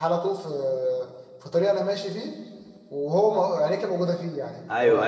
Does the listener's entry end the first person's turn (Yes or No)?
Yes